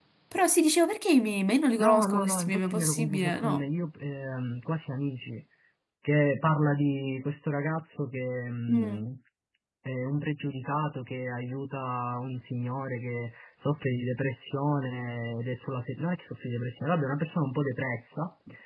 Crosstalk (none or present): present